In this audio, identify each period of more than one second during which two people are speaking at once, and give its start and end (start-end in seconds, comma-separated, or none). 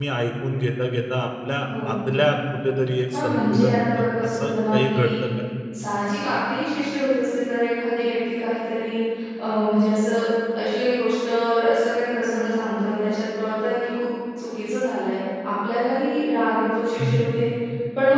3.1-5.1